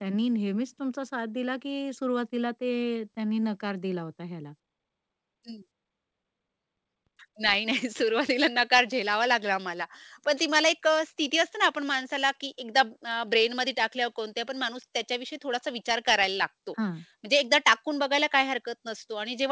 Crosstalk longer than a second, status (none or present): none